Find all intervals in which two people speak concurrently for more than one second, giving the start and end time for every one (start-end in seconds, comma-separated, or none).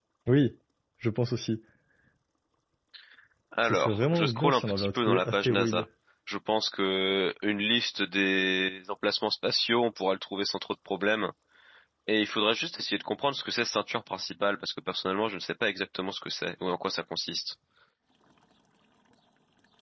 3.6-5.8